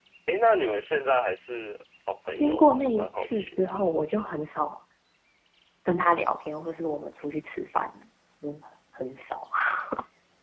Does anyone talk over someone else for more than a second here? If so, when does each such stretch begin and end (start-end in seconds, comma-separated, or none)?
2.4-3.7